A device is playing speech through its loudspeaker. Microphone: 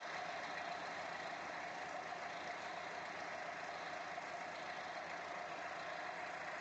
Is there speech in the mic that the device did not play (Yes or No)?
No